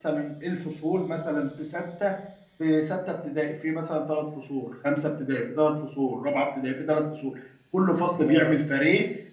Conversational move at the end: listening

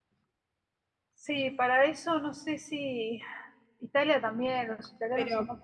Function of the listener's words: taking over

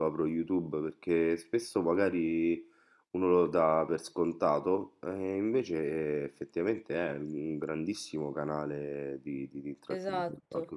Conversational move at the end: taking over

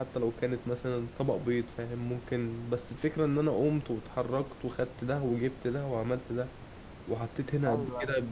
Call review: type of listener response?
listening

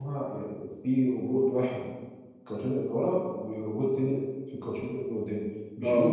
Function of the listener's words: listening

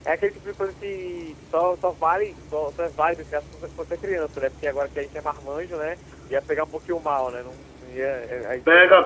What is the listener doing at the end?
taking over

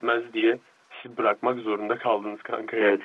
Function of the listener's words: taking over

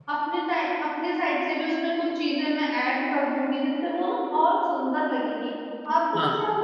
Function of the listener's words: listening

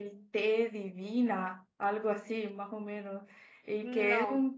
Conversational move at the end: listening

